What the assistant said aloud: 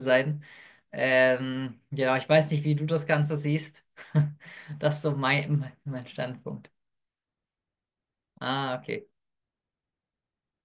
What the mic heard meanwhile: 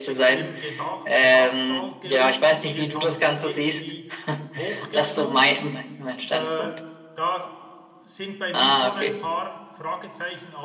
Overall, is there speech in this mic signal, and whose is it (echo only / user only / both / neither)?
both